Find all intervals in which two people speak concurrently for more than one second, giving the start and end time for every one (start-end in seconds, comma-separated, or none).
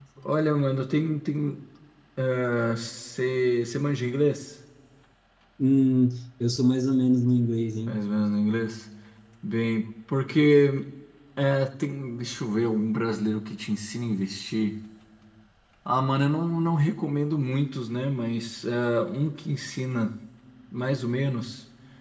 none